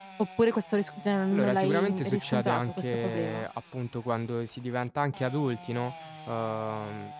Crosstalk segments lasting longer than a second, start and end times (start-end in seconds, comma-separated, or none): 1.3-3.4